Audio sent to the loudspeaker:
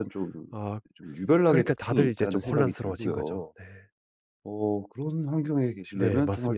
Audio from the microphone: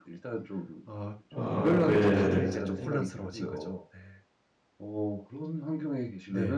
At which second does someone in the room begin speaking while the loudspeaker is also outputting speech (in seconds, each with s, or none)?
1.3 s